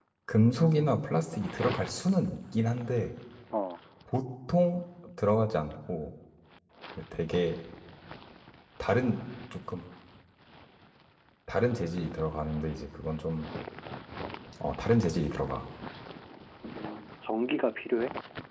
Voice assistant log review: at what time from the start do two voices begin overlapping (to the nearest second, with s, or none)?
none